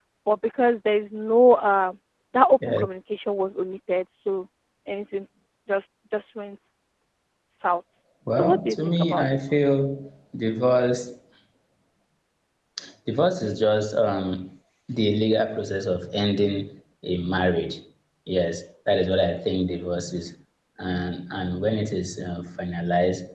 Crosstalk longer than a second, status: present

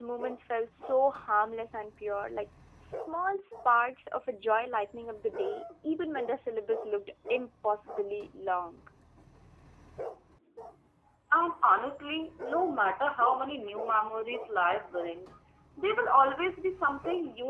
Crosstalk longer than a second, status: none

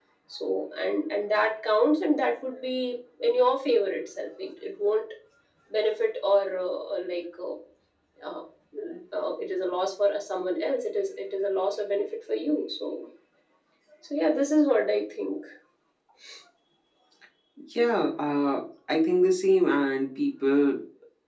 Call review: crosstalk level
none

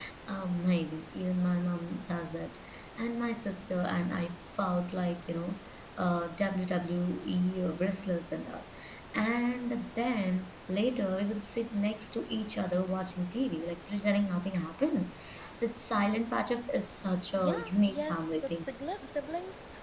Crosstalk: present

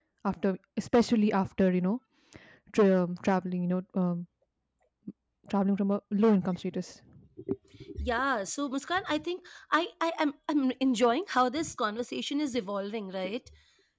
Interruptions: none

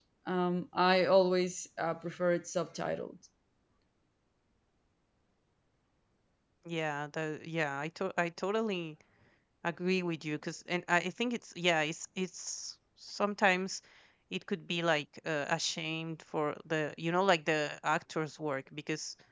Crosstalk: none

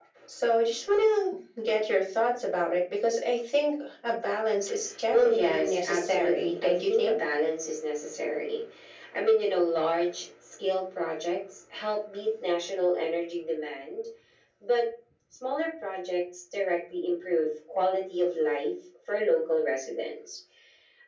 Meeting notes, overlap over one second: present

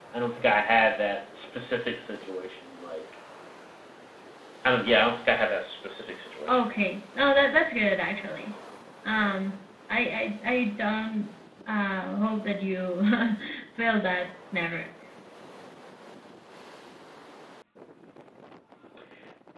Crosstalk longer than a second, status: none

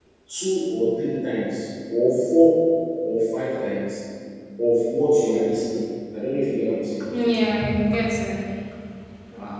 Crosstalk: none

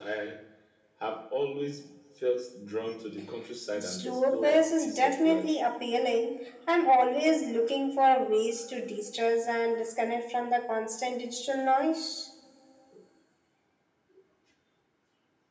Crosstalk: present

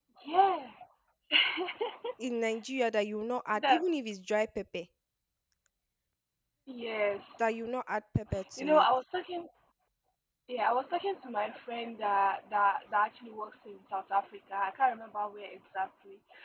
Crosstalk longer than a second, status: none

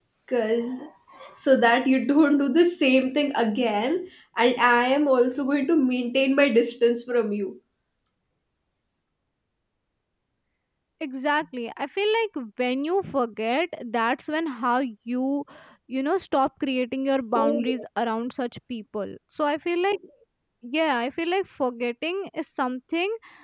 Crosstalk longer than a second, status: none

